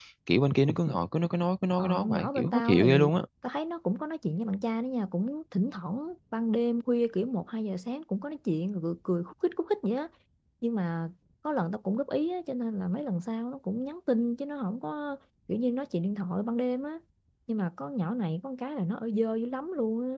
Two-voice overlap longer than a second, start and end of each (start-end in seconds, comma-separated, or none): 1.8-3.1